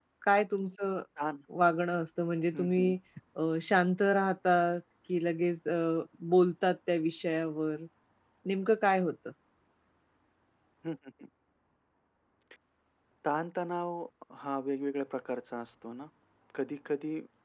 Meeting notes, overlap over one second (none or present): none